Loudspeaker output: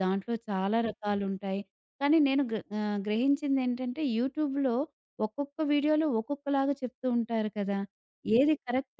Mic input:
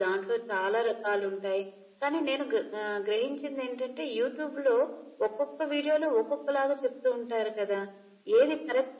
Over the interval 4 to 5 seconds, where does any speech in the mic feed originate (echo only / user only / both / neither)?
echo only